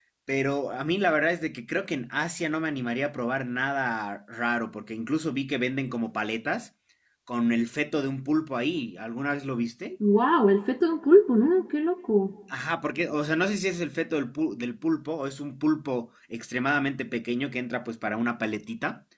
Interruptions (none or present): none